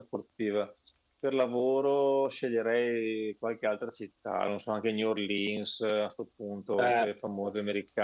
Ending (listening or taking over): listening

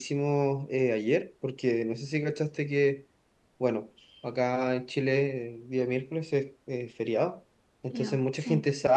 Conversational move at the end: listening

